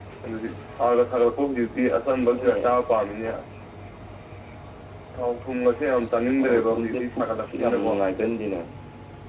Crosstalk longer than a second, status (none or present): present